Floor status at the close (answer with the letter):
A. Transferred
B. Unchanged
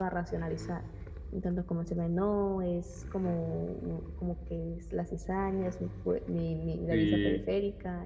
B